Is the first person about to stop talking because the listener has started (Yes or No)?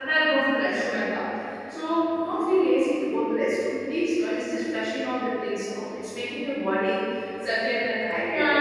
Yes